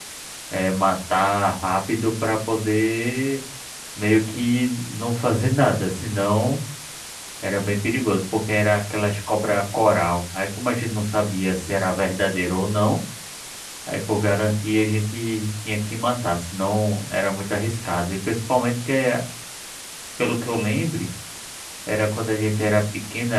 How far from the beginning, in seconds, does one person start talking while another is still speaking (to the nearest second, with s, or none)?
none